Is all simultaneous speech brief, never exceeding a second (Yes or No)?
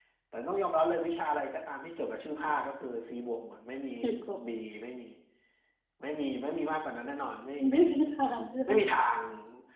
Yes